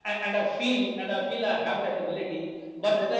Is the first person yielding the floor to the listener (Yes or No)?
No